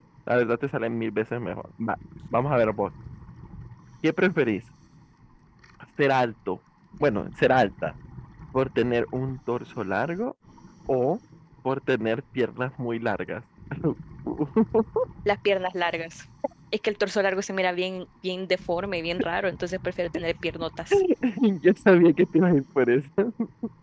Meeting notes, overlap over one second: none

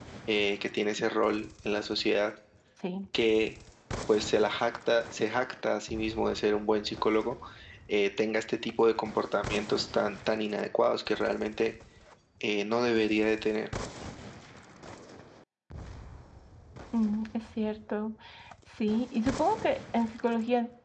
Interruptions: none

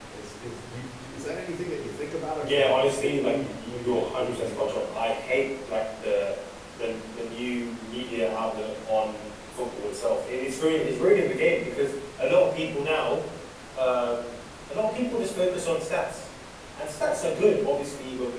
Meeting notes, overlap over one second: present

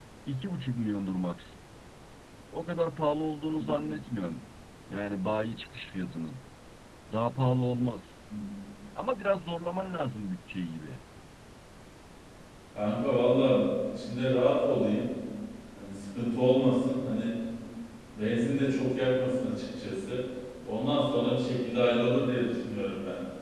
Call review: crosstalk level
none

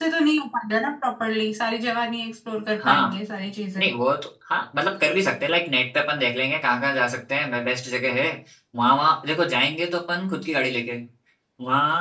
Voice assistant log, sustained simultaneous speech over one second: none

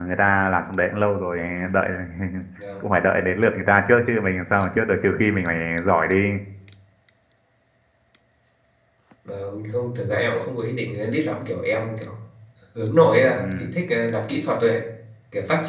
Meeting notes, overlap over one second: none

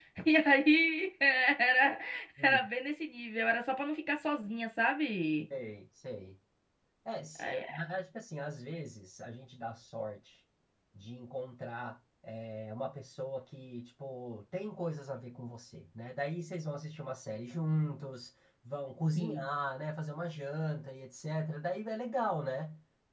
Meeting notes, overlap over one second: none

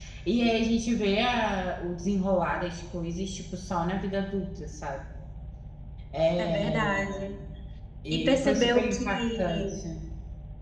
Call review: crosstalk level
present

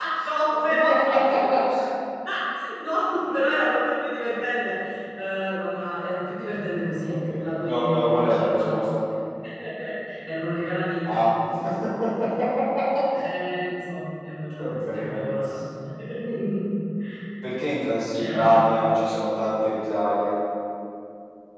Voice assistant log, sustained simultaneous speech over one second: present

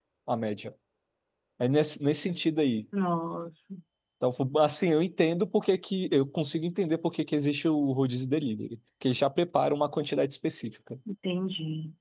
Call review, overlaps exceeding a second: none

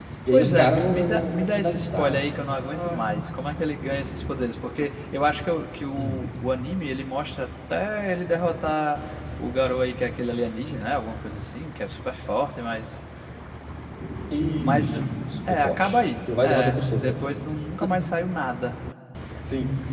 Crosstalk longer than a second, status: present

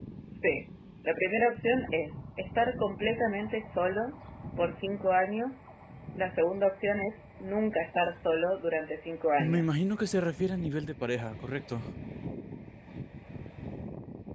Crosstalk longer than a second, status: none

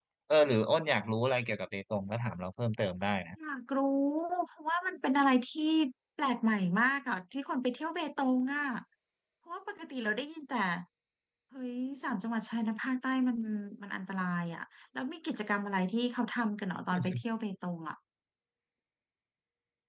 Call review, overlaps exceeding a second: none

